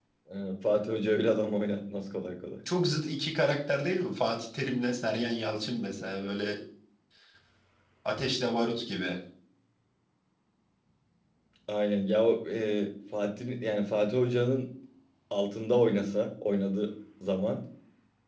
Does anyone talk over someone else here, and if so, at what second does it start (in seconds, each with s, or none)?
none